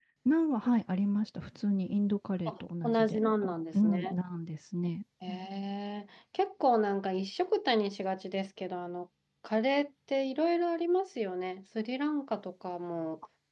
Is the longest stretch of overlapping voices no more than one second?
No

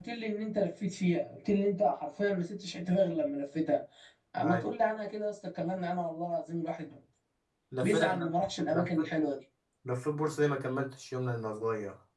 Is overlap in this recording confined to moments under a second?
Yes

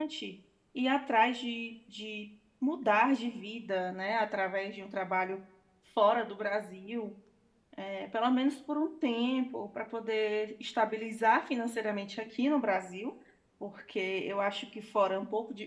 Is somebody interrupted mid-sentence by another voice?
No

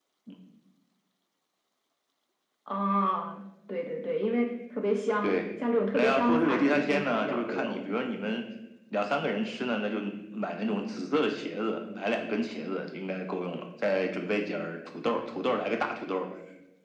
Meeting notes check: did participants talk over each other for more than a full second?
Yes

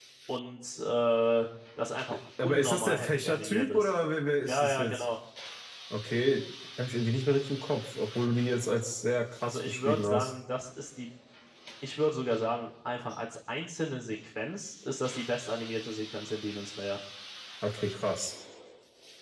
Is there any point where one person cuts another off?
Yes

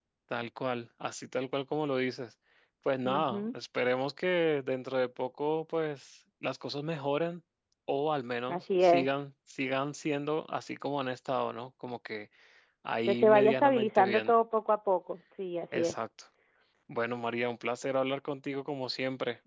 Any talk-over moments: Yes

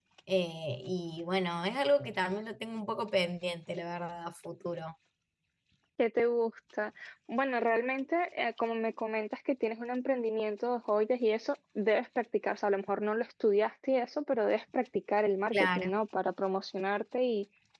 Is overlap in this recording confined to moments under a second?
Yes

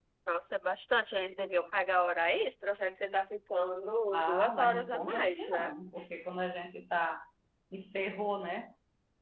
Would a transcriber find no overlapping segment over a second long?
No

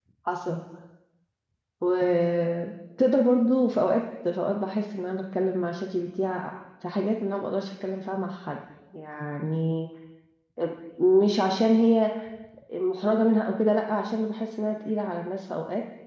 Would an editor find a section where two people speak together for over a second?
No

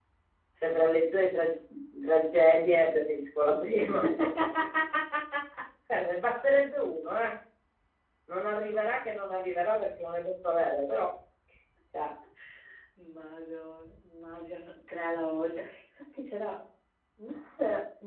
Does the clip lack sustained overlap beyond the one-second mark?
Yes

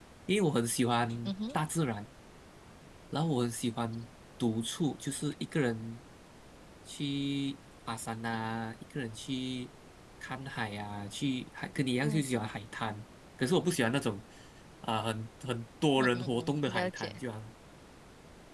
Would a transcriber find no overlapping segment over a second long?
No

